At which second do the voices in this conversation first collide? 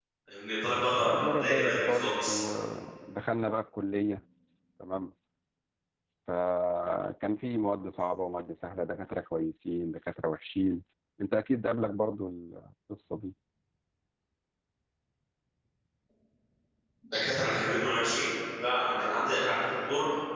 1.0 s

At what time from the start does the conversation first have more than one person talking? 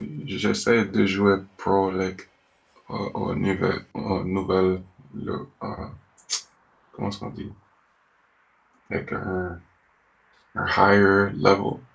none

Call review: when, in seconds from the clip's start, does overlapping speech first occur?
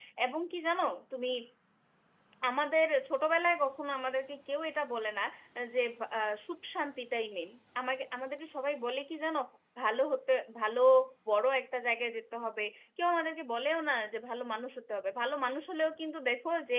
none

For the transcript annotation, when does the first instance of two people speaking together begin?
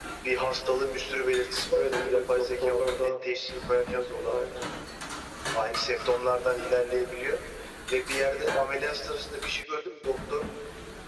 1.7 s

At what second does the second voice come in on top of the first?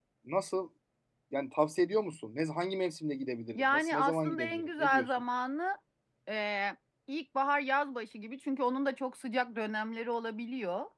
3.6 s

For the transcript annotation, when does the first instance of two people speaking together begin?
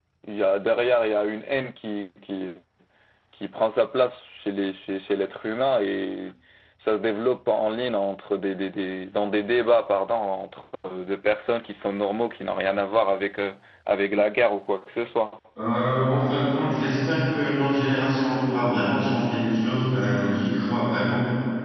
none

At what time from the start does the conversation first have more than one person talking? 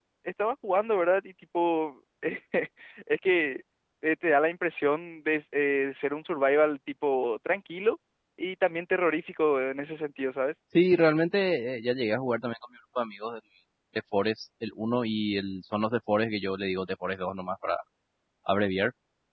none

